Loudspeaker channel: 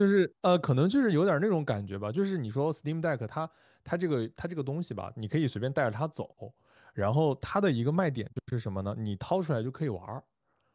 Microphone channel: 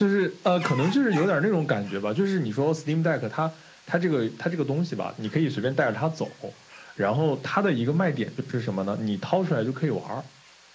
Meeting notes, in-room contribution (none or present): none